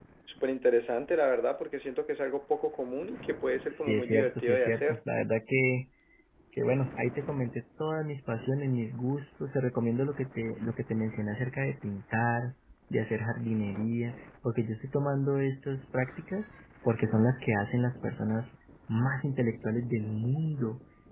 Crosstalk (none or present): present